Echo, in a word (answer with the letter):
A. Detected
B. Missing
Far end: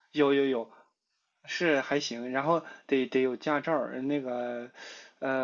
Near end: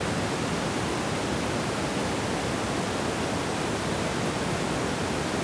B